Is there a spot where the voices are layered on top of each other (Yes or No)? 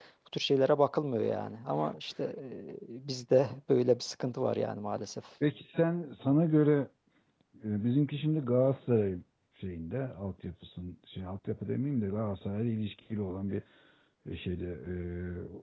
No